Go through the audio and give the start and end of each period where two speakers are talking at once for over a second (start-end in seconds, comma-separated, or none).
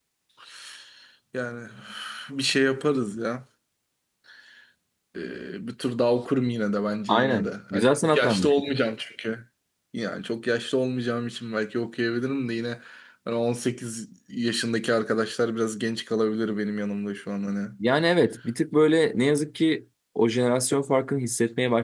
7.1-8.5